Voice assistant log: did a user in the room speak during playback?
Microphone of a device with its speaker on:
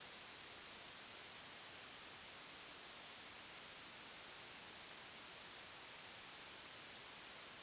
No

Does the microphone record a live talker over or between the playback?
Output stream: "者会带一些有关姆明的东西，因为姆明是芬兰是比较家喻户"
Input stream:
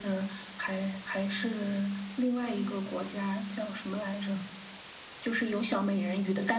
Yes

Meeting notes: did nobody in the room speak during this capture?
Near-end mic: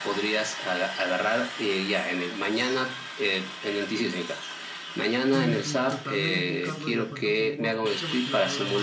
No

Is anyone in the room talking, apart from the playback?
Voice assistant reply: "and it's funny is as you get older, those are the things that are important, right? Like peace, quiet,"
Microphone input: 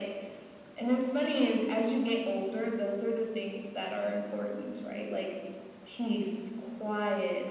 No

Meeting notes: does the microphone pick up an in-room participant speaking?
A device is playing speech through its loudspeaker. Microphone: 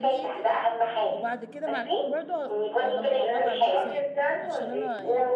Yes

